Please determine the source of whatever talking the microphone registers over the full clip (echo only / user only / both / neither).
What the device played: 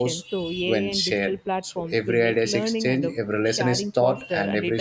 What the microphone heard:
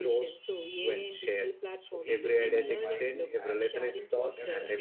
both